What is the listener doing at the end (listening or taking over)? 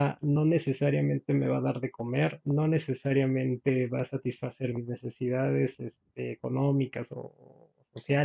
listening